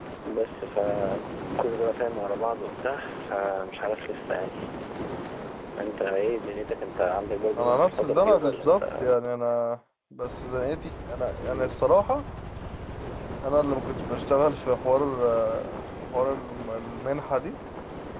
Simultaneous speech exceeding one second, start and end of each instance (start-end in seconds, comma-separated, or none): 7.6-9.0